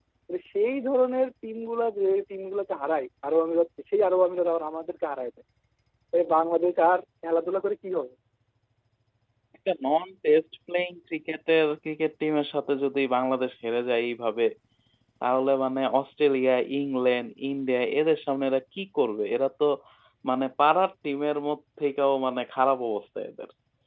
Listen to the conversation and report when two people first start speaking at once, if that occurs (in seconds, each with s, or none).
none